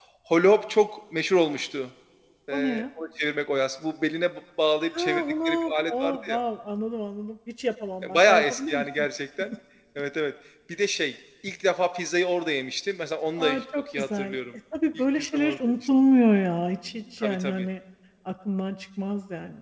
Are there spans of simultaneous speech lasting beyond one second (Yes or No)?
Yes